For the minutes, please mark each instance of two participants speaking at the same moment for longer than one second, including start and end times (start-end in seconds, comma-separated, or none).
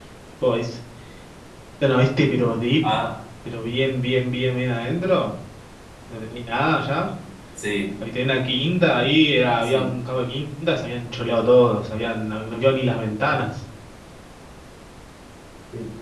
none